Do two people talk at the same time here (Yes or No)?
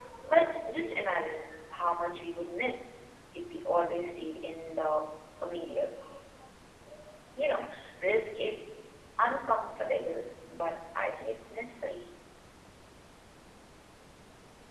No